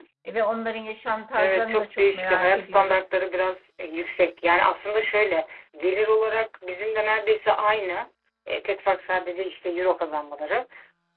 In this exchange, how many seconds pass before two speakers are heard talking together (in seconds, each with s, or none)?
1.4 s